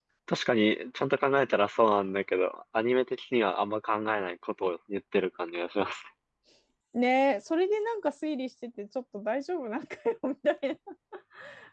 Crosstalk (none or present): none